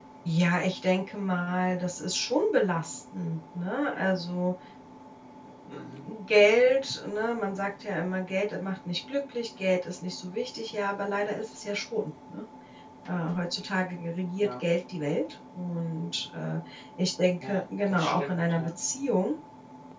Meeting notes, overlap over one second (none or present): present